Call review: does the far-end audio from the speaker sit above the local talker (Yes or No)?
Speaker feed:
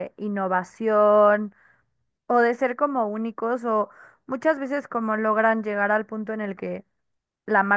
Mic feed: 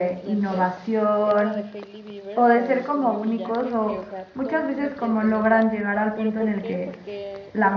Yes